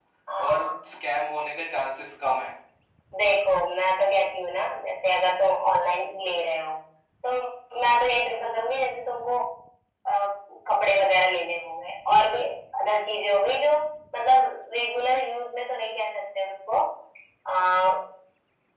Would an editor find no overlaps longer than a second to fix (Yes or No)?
Yes